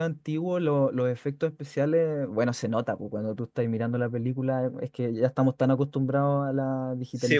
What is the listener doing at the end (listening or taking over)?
listening